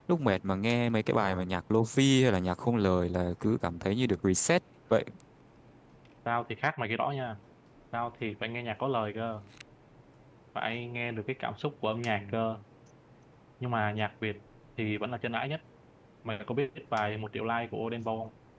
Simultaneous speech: No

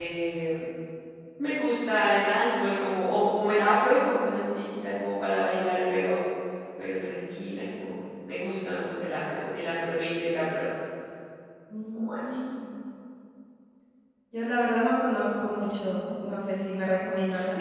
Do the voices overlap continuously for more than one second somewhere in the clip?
No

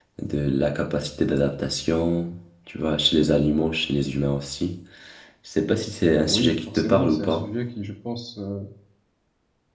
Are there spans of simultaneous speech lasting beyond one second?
Yes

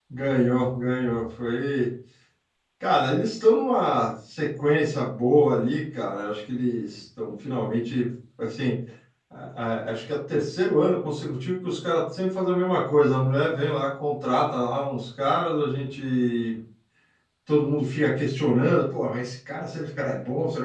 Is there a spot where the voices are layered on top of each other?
No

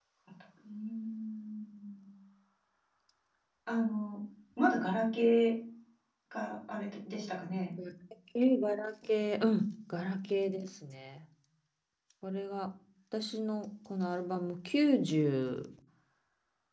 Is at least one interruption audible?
No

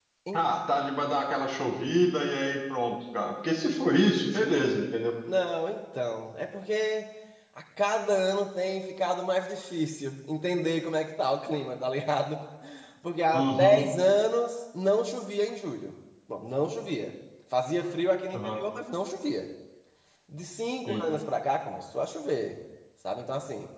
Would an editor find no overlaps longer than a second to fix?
Yes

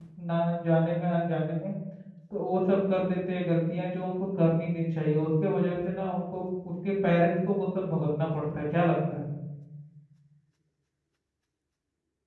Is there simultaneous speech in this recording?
No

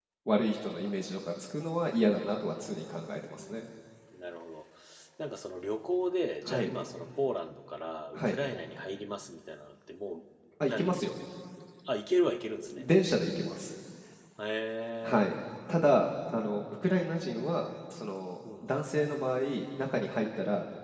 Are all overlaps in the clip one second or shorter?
Yes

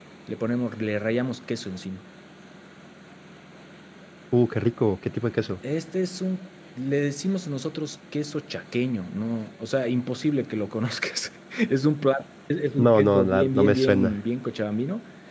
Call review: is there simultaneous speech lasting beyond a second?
Yes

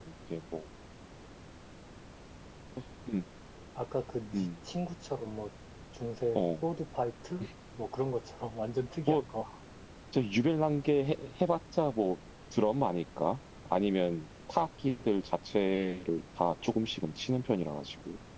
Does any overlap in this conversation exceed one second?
No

